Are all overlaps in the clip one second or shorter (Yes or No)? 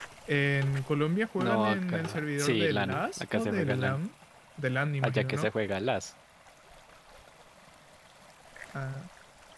No